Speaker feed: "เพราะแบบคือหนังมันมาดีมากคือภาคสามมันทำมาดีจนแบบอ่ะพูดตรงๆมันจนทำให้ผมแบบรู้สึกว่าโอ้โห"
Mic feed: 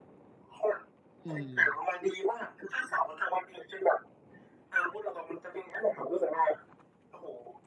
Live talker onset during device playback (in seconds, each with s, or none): 1.2 s